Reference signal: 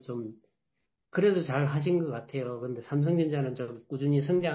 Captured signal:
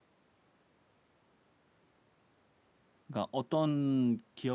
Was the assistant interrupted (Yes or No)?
Yes